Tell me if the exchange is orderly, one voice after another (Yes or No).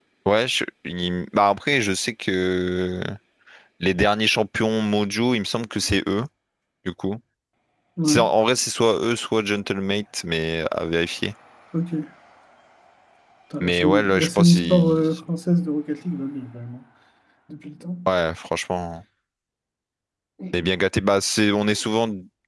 No